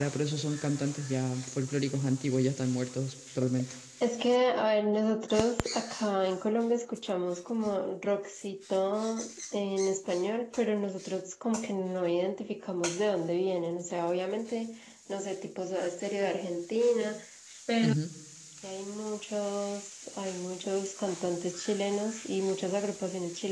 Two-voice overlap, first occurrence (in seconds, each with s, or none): none